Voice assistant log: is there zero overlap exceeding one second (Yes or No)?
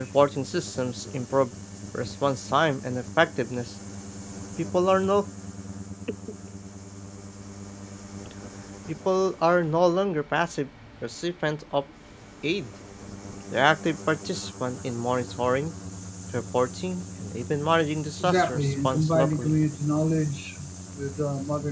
No